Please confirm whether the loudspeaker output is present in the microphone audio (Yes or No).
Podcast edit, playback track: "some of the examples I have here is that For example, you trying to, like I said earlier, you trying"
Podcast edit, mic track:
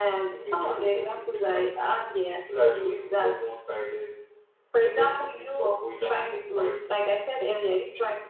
Yes